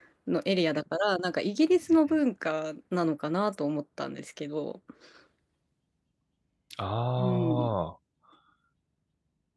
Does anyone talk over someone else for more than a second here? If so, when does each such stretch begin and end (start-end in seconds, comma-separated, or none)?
none